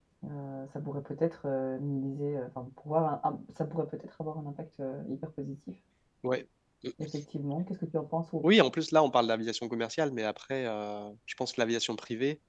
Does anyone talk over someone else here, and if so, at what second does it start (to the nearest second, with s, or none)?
none